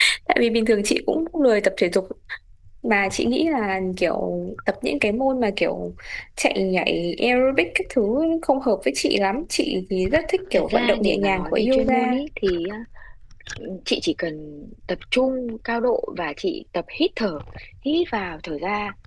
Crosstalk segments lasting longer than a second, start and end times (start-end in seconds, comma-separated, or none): 10.5-12.0